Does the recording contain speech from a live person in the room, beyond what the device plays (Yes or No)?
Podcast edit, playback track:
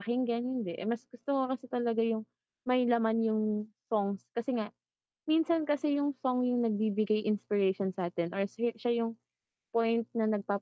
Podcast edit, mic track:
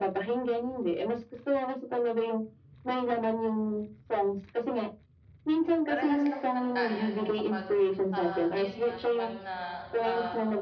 Yes